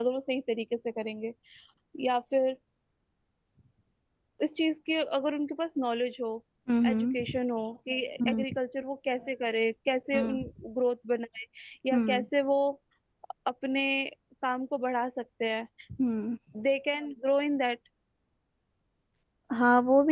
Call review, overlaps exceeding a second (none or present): none